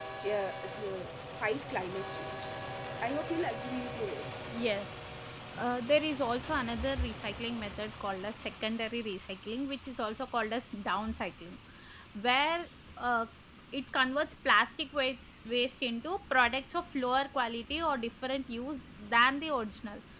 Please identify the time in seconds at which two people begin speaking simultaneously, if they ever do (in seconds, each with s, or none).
none